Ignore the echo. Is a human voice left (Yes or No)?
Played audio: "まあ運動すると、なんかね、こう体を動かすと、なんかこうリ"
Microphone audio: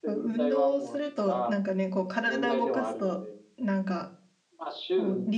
Yes